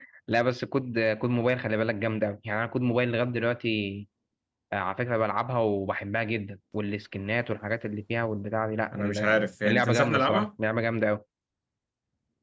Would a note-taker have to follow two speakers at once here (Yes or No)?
Yes